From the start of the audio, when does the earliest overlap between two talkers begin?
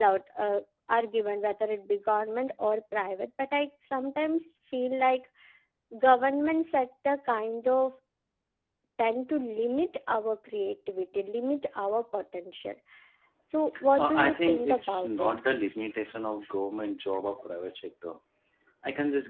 14.0 s

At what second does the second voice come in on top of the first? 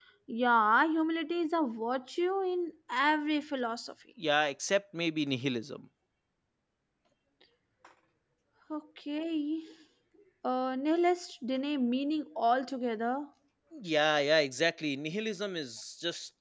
none

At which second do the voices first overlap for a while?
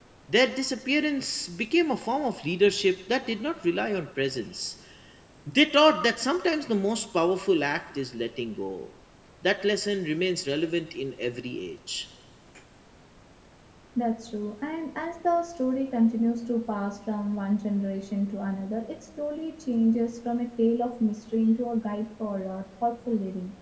none

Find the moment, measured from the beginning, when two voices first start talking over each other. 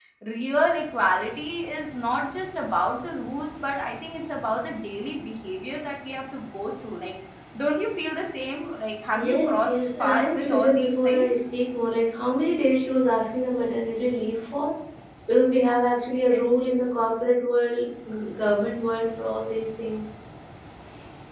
9.1 s

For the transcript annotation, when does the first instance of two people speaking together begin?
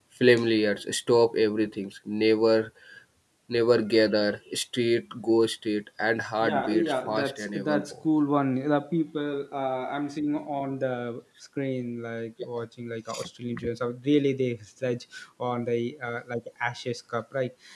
6.4 s

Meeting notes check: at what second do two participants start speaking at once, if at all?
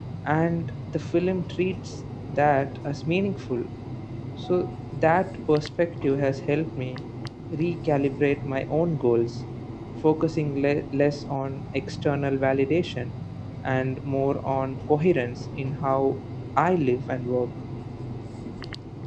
none

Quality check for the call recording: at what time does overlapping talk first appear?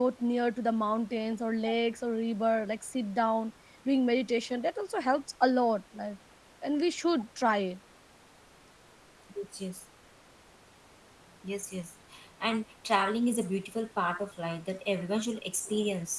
none

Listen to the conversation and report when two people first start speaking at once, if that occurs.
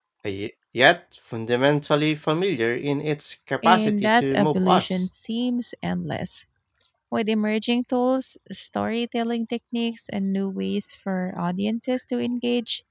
3.6 s

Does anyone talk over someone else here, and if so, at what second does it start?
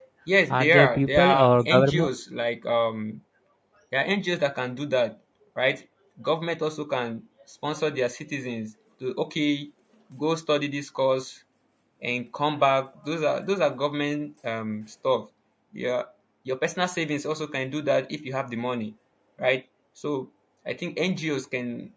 0.5 s

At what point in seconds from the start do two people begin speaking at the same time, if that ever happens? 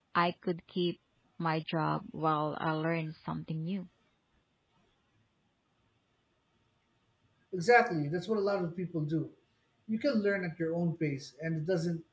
none

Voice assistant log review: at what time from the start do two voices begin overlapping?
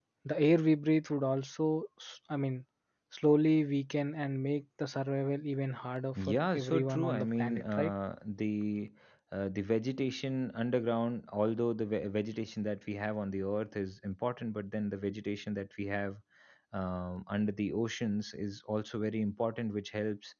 6.2 s

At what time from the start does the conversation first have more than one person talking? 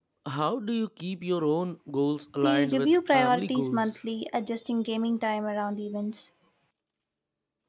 2.4 s

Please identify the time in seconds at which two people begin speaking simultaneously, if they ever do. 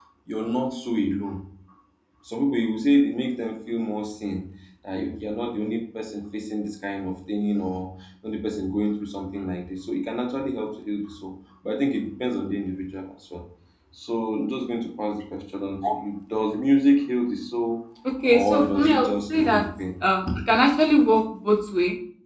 18.3 s

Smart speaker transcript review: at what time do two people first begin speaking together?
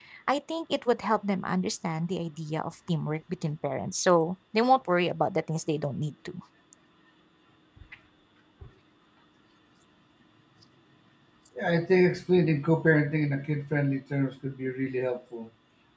none

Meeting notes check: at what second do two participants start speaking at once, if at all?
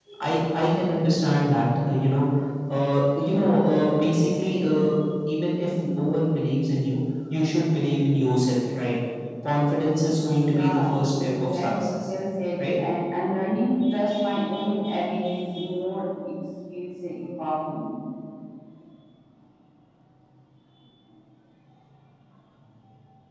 10.4 s

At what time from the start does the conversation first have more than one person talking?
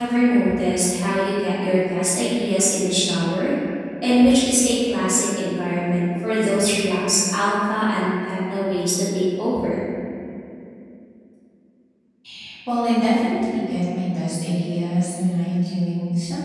none

